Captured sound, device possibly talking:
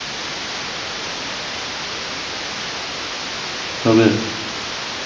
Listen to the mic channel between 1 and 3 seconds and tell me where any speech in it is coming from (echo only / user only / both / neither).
neither